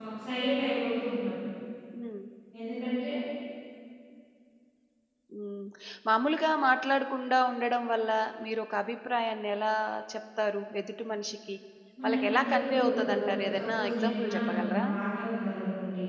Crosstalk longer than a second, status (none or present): present